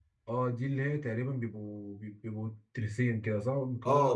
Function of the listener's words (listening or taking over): taking over